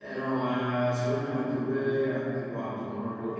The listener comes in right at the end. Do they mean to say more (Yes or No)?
Yes